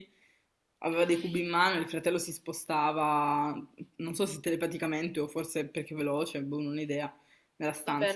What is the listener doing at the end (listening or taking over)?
taking over